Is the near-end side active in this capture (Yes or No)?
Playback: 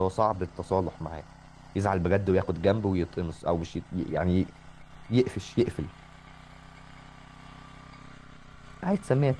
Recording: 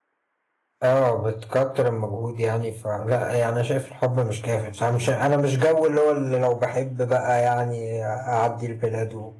Yes